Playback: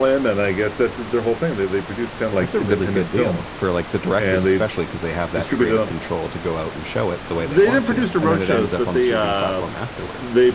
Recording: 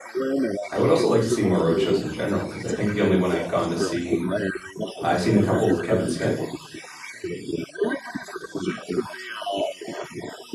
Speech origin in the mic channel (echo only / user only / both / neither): both